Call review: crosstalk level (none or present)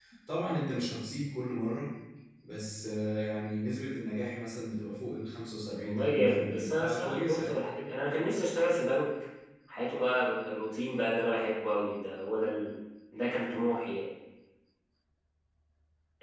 present